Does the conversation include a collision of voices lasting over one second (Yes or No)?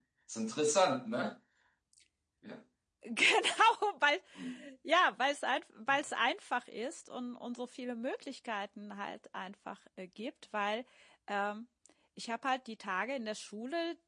No